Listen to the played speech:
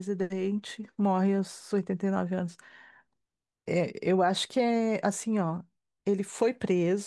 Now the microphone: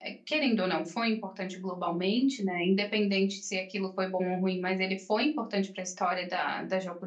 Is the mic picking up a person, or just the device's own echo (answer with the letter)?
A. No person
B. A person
B